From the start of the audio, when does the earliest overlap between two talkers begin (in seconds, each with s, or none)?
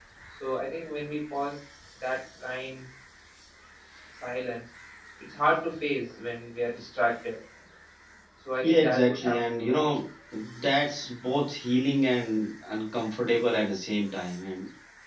8.6 s